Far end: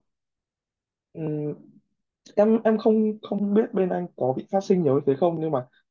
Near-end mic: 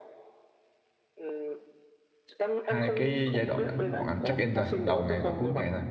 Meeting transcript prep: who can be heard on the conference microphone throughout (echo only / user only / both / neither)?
both